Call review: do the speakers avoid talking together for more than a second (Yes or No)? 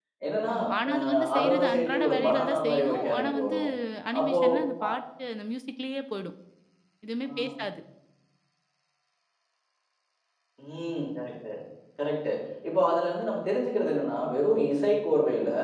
No